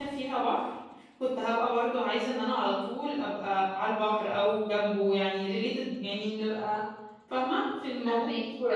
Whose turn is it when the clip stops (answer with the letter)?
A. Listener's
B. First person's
A